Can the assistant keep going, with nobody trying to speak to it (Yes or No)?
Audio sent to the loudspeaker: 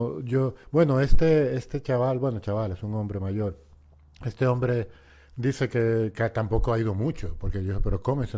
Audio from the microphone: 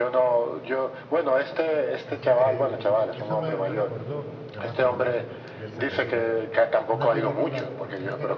No